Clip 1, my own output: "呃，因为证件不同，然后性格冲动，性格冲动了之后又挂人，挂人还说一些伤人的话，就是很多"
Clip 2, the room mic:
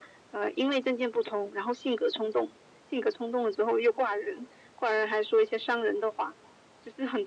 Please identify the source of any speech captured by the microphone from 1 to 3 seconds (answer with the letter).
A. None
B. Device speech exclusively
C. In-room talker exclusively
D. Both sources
B